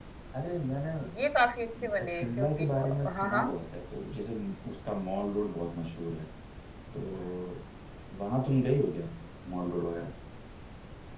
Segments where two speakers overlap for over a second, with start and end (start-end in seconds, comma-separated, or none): 2.0-3.4